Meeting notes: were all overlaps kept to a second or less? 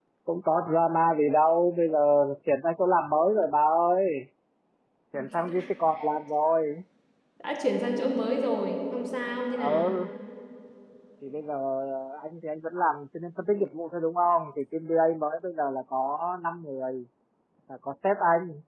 Yes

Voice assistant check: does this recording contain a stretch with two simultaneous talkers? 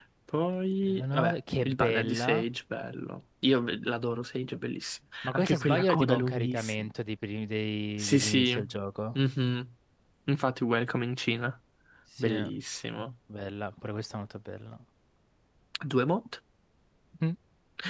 Yes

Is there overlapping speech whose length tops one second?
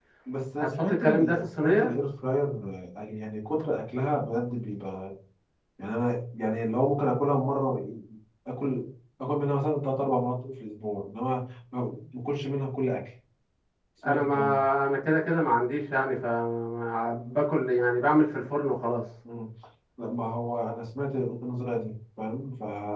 Yes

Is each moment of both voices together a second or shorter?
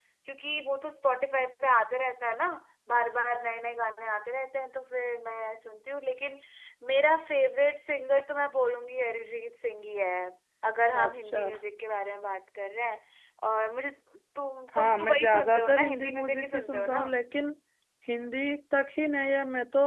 No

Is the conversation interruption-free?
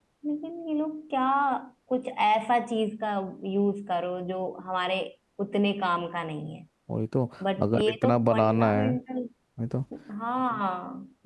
No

